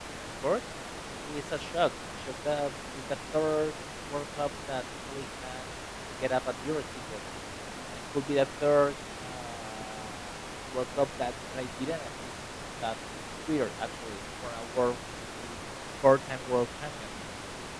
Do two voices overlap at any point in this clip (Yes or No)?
No